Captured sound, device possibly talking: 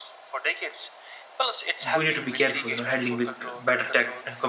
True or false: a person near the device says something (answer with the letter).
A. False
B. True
B